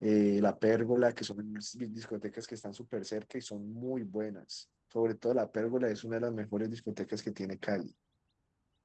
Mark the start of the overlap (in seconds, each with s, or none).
none